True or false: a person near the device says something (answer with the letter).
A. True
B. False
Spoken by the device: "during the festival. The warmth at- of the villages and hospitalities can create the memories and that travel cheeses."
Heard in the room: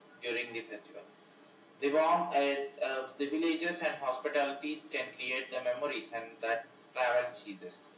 B